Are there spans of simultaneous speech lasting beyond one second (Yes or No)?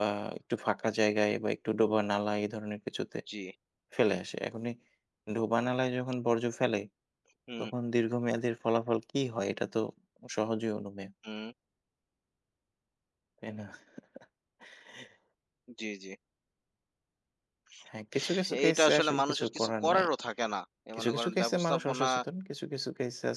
Yes